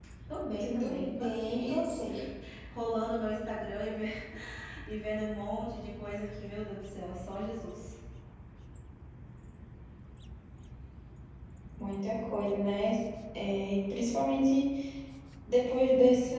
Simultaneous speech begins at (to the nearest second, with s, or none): 1 s